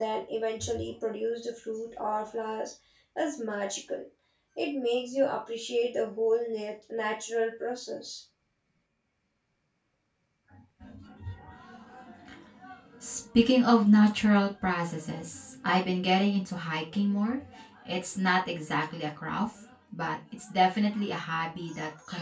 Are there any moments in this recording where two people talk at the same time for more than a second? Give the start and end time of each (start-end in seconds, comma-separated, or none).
none